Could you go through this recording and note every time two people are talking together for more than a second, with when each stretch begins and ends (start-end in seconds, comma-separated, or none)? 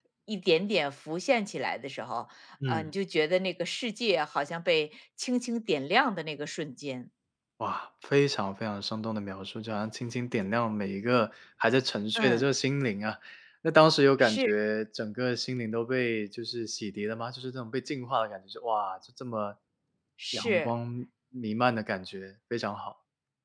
none